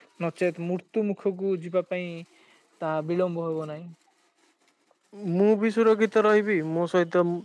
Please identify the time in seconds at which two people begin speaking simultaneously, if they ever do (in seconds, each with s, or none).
none